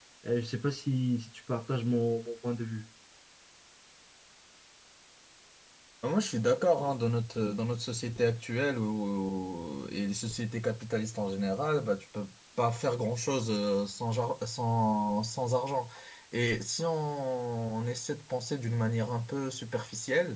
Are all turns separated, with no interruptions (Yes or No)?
Yes